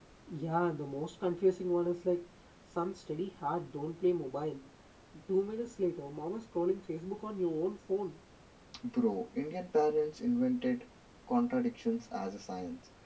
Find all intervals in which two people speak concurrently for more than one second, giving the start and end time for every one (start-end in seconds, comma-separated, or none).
none